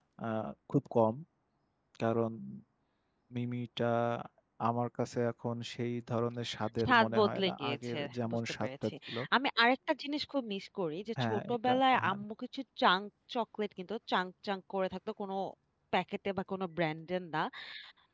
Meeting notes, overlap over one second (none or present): present